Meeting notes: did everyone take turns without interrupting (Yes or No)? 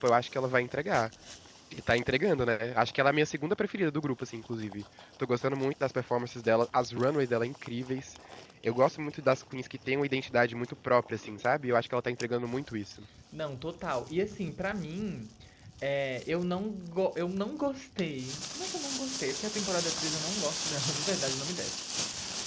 Yes